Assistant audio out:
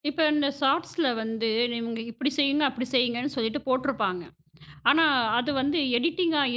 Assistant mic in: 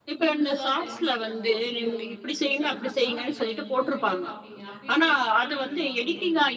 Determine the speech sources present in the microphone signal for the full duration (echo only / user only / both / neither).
both